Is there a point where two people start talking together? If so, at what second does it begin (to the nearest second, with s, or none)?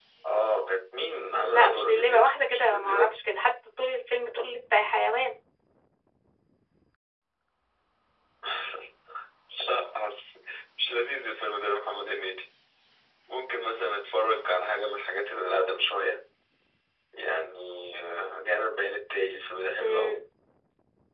1 s